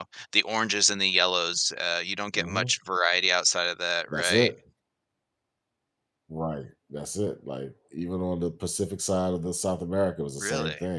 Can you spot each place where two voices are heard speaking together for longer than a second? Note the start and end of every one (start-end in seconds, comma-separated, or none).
none